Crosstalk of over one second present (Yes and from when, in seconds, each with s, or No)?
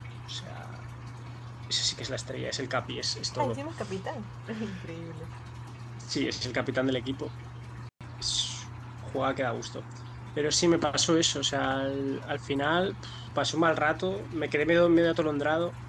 No